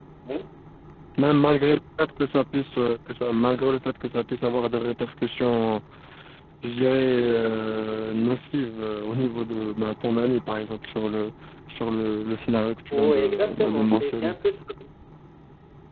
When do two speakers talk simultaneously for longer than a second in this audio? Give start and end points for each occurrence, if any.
12.9-14.4

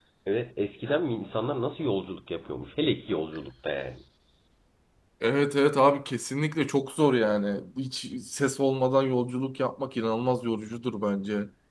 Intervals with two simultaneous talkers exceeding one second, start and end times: none

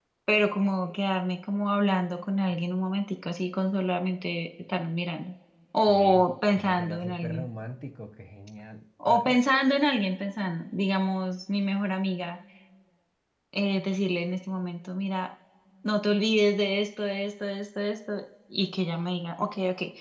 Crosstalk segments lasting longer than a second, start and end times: 5.9-7.5

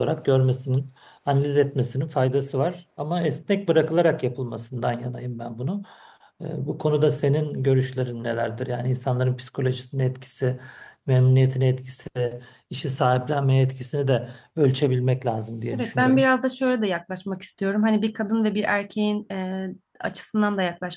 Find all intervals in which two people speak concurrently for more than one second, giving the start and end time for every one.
none

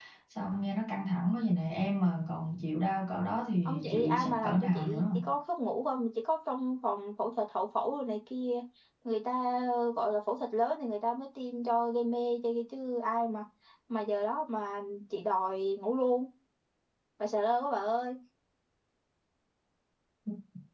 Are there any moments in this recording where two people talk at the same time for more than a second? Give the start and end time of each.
3.6-5.0

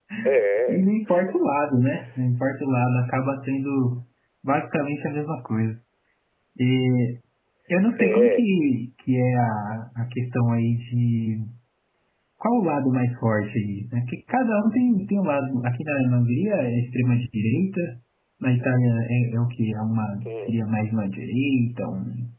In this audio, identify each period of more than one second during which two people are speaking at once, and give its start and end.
none

